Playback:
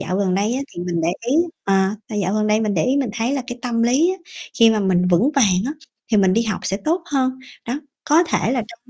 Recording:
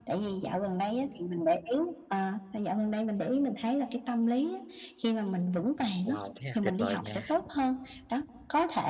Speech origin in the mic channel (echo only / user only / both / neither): both